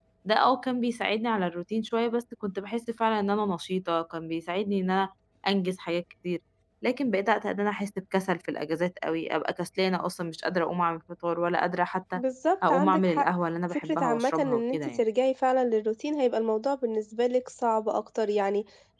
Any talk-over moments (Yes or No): Yes